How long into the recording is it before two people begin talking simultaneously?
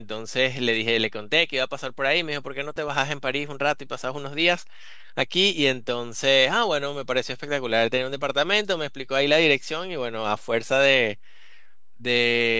none

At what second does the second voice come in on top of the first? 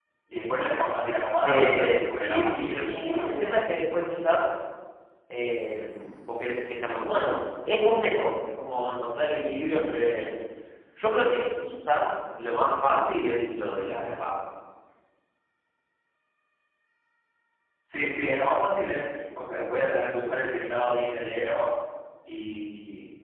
1.4 s

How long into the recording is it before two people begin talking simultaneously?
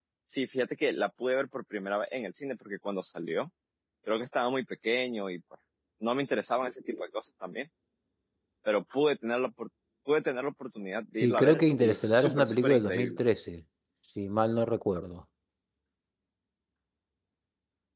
11.1 s

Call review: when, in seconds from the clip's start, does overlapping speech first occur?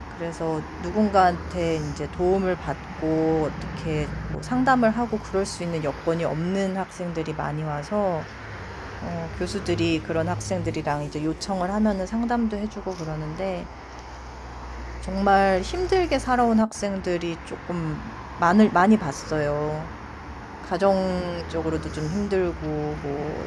none

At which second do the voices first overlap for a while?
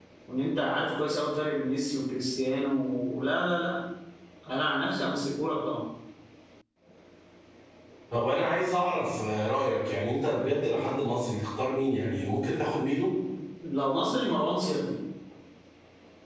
none

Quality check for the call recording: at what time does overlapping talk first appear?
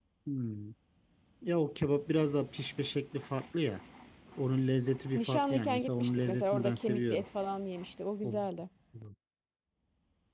5.2 s

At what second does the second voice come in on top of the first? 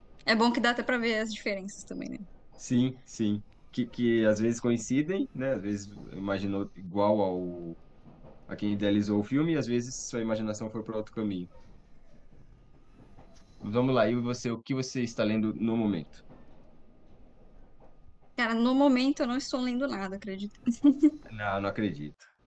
none

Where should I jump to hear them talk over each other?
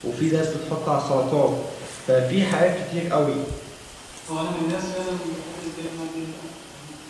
none

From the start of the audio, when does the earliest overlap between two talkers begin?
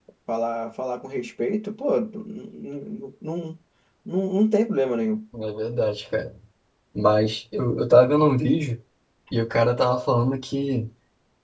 none

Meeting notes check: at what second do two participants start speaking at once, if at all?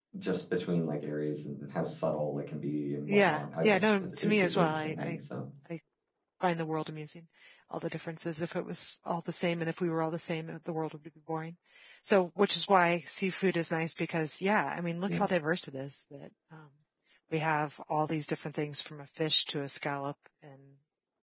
3.1 s

